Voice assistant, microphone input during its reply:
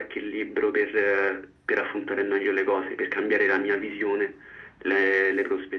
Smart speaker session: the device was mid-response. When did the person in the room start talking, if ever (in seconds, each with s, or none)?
none